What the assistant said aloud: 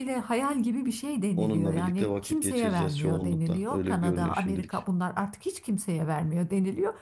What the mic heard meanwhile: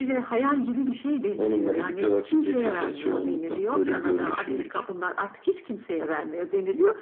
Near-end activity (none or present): none